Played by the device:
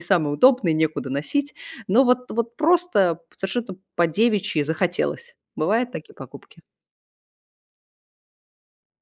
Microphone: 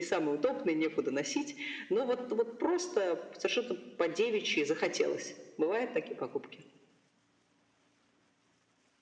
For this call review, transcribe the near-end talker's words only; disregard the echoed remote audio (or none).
none